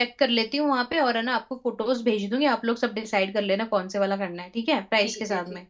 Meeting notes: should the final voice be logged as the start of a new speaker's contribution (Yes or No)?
Yes